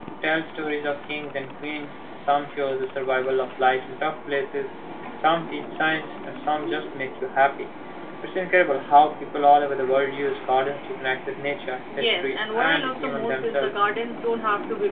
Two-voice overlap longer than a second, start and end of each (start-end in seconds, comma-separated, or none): 12.0-13.7